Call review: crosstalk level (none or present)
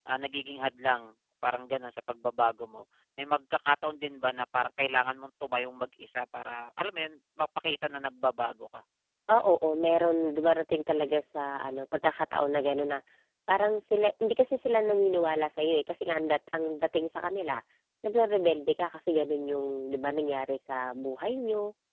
none